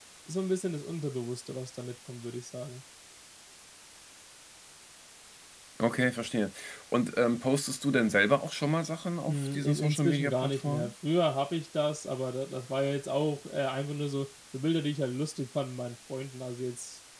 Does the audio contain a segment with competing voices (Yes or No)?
Yes